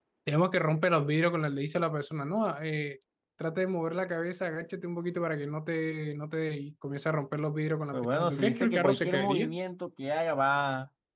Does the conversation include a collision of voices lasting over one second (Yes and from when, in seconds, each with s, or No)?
Yes, from 7.9 s